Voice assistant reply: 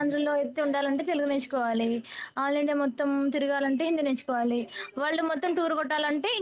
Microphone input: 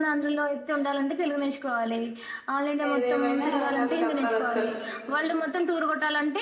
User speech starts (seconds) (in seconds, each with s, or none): 2.9 s